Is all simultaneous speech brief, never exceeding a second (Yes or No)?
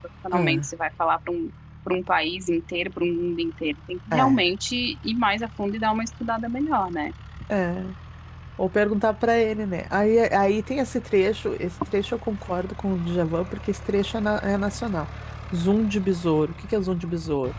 Yes